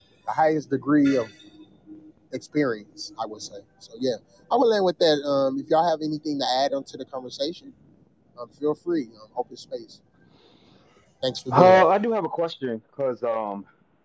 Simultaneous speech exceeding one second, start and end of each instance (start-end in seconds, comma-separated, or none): none